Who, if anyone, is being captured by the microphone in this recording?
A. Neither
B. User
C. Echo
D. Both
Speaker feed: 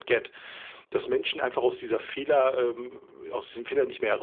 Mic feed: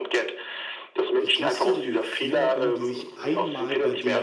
D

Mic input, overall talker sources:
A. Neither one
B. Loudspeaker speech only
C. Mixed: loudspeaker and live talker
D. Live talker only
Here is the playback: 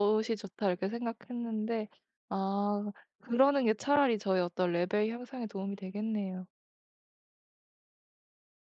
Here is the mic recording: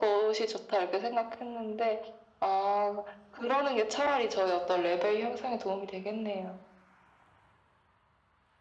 B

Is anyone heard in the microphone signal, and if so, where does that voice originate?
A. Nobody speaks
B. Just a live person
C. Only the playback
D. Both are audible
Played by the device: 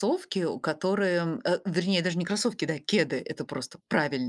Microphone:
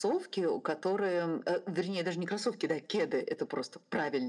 C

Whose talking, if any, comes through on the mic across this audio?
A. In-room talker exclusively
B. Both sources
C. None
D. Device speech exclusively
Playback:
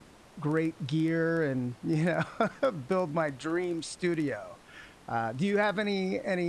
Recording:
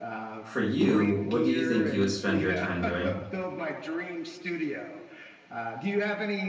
B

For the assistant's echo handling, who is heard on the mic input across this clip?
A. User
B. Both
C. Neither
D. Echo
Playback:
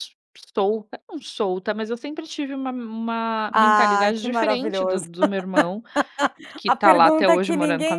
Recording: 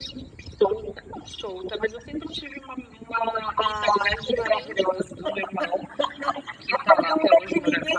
D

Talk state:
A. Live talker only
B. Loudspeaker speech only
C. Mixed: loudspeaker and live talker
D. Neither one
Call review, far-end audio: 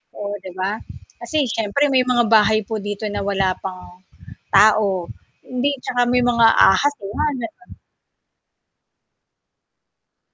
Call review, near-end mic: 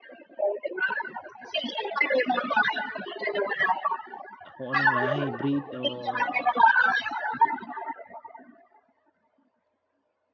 C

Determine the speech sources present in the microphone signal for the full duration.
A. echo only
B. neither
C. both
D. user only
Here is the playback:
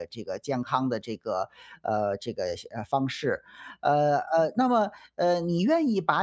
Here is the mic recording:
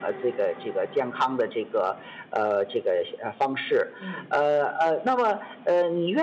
C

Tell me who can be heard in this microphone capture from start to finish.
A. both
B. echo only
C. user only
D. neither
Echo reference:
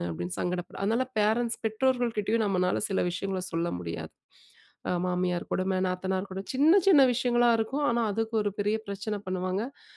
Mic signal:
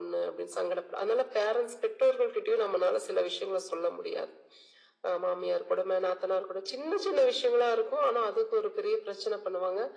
B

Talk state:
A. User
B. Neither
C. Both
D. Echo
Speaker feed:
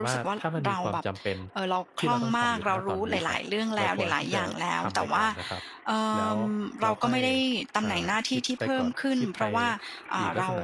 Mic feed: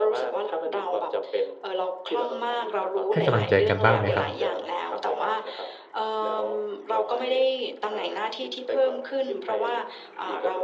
C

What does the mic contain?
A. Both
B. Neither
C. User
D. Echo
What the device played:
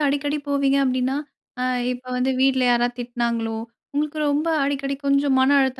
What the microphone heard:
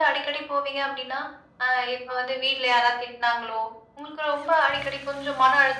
D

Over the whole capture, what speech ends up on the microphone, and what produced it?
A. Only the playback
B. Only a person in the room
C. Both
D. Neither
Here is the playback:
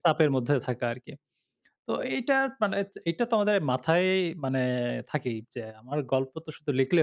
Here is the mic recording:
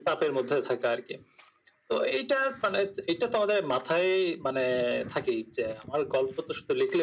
A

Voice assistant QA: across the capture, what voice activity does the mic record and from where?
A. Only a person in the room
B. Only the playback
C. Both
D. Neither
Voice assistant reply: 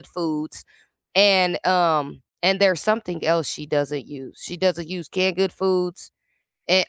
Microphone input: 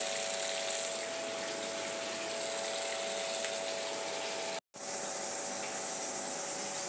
D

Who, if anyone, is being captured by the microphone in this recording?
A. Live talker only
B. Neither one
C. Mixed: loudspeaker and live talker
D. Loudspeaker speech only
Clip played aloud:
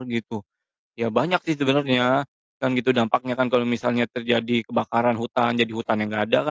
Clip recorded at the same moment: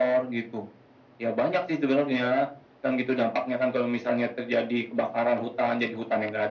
D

